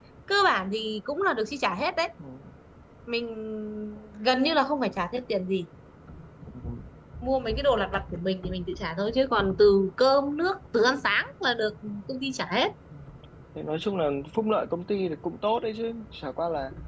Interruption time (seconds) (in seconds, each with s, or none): none